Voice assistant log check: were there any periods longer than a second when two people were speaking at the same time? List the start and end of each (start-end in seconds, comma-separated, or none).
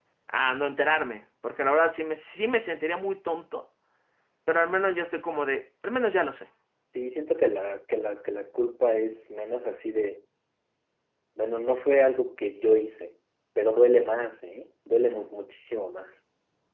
none